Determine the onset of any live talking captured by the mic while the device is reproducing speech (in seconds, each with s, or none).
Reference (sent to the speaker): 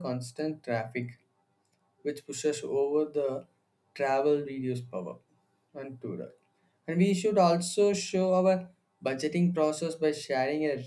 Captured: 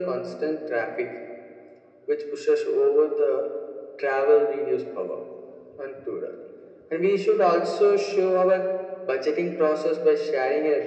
none